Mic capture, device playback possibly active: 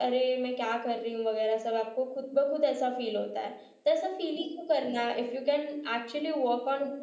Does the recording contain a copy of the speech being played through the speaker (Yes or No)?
No